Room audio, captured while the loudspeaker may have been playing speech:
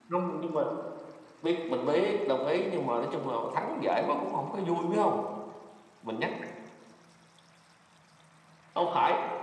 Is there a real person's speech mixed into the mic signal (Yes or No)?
No